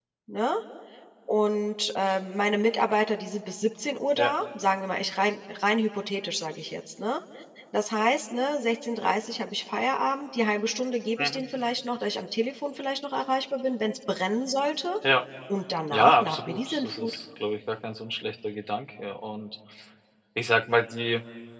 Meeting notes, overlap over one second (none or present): present